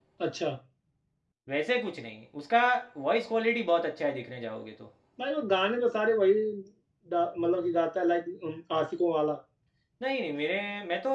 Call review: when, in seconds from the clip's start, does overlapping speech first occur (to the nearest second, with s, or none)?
none